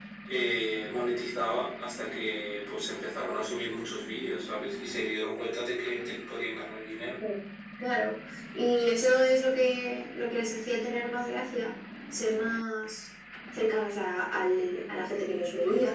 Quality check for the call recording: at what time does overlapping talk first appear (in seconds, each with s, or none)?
none